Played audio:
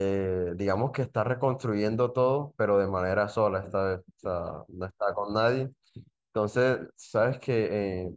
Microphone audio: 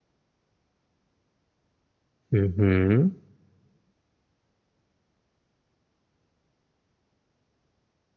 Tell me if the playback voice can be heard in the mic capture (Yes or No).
No